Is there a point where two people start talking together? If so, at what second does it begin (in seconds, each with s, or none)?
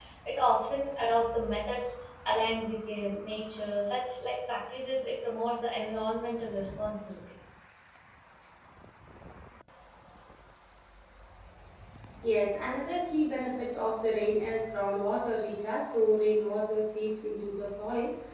none